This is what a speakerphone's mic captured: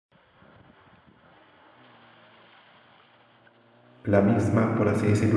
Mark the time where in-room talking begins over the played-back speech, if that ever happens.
4 s

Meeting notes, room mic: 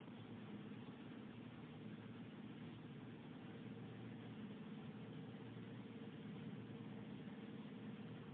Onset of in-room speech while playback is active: none

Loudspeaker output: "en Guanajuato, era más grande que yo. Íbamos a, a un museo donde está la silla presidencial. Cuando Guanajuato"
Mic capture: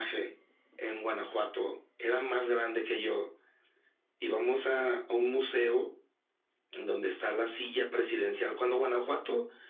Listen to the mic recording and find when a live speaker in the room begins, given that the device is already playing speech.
none

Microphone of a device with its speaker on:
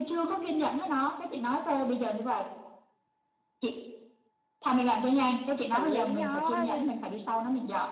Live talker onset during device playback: 6 s

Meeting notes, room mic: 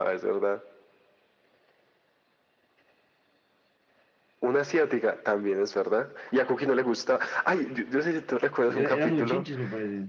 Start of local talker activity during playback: 9 s

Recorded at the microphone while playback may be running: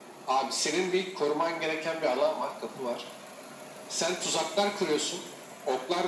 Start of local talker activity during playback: none

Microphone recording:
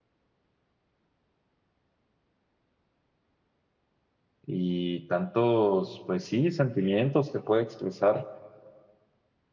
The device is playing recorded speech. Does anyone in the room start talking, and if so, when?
4 s

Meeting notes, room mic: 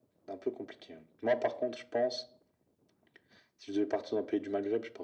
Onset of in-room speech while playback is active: none

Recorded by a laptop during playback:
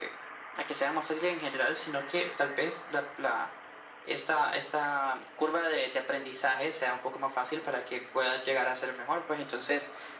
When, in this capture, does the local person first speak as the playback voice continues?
none

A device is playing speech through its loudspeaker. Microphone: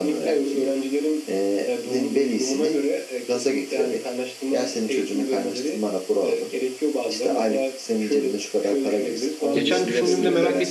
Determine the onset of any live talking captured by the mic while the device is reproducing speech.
10 s

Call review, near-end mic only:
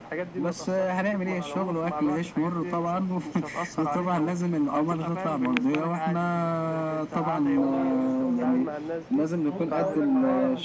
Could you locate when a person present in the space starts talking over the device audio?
8 s

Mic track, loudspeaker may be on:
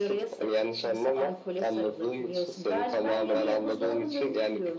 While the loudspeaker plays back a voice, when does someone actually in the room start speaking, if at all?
none

